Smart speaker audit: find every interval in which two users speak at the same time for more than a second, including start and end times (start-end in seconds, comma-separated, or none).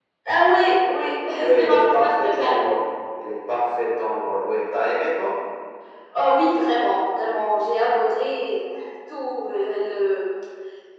1.4-2.6